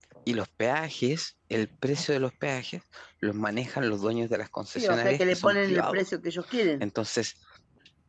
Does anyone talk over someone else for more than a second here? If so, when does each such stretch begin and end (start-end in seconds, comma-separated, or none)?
4.8-6.0